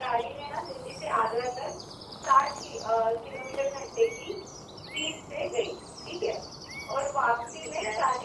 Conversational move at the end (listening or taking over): listening